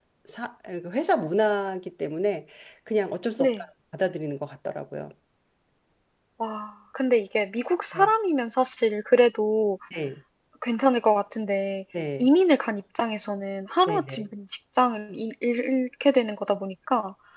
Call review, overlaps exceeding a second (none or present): none